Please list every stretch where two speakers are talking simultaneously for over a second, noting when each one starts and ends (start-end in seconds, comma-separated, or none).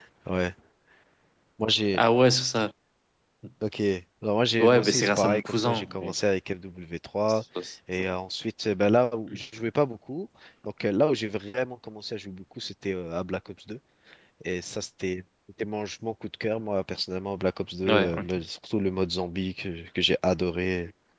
4.6-6.1